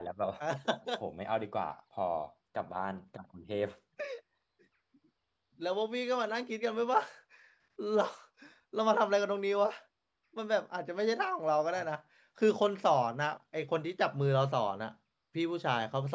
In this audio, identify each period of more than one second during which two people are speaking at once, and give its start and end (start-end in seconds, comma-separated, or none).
none